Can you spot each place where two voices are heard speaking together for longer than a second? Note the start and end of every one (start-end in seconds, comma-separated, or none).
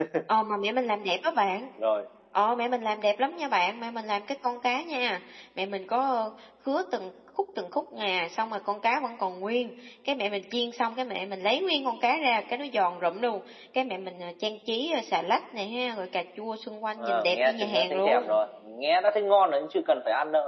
17.0-18.4